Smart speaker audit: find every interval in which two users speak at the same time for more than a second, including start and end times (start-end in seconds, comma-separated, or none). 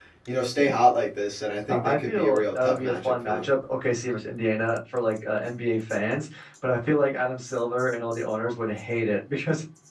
1.7-3.4